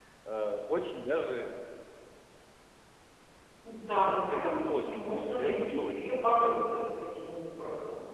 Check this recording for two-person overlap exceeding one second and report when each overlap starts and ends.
4.3-6.8

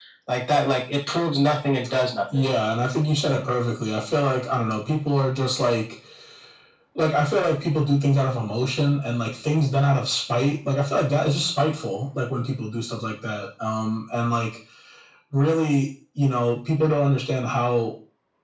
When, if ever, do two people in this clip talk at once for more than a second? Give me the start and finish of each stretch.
none

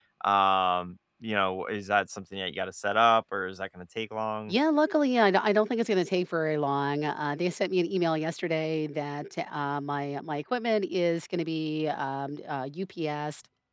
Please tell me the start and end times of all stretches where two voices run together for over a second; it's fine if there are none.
none

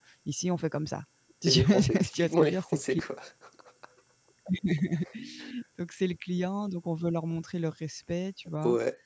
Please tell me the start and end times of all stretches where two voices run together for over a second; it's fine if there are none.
1.5-3.0

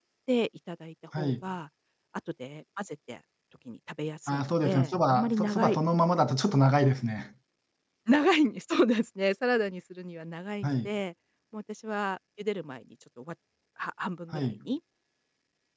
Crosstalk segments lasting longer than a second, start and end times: 4.3-5.8

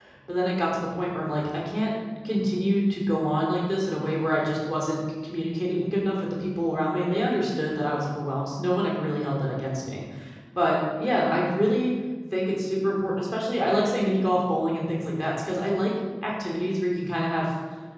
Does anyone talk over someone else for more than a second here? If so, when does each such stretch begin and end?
none

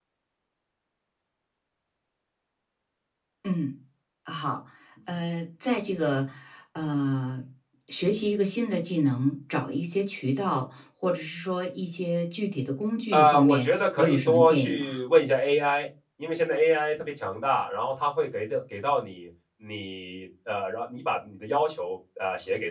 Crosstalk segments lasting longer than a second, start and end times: 13.1-15.0

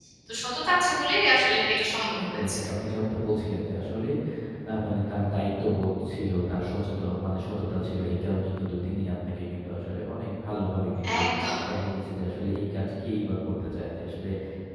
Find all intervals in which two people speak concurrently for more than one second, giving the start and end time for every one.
none

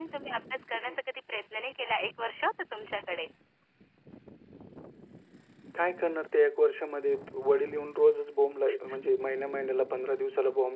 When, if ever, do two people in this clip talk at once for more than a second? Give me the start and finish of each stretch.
none

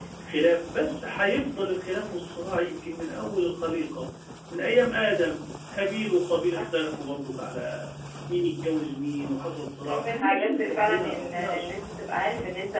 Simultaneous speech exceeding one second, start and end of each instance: 9.8-11.6

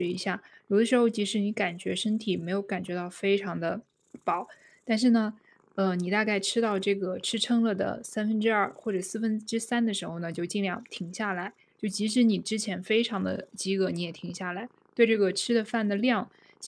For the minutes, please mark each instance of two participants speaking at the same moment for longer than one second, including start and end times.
none

